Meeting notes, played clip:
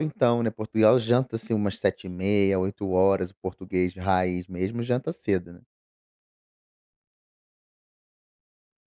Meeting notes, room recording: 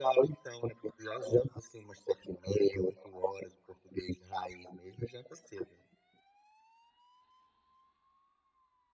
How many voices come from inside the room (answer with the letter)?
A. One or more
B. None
B